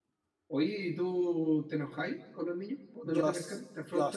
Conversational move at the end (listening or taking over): taking over